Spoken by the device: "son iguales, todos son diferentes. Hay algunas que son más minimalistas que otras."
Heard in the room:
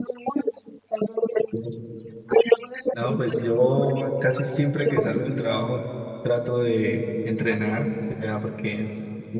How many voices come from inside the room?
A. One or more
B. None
A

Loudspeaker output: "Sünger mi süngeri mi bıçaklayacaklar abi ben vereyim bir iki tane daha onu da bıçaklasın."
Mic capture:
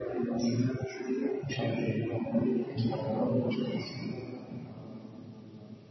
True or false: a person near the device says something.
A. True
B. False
A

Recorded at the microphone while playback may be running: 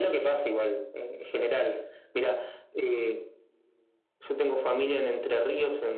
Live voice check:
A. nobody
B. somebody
A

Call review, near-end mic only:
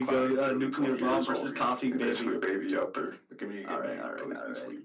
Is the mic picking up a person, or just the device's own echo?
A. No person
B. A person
A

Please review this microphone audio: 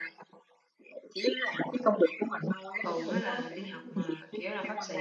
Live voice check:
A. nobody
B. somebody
B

